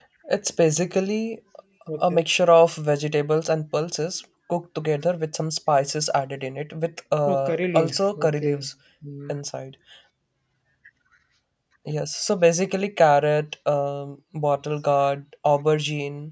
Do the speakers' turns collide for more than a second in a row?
Yes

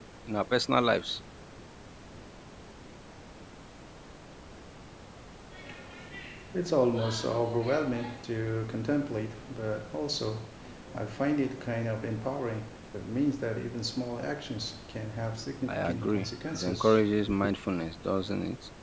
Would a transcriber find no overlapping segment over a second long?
No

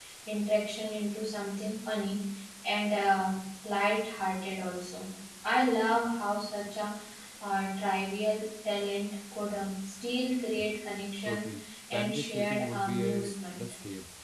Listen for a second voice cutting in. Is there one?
Yes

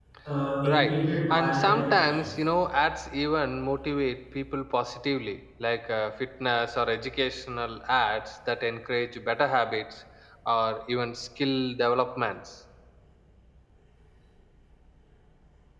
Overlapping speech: Yes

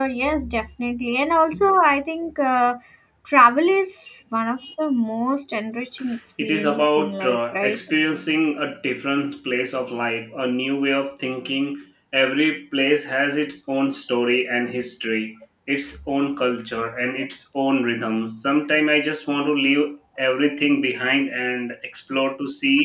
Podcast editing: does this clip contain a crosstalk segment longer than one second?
Yes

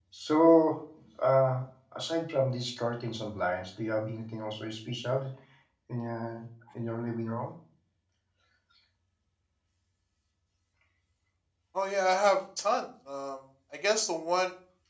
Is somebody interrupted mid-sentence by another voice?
No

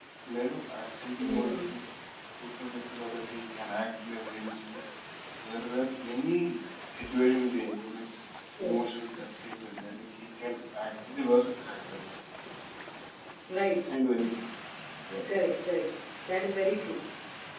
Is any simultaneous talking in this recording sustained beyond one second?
No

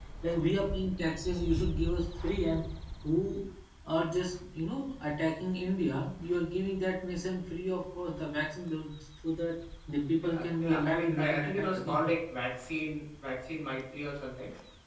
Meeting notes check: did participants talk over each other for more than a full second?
Yes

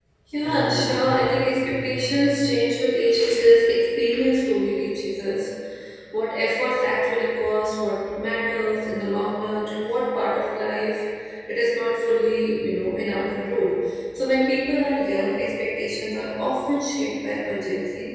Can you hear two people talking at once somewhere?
Yes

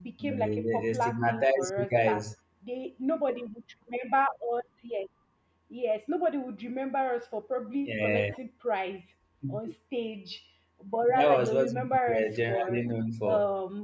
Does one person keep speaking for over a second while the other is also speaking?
Yes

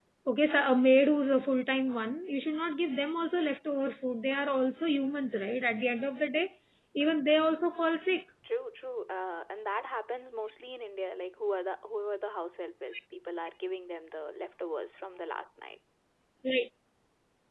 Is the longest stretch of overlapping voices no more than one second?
Yes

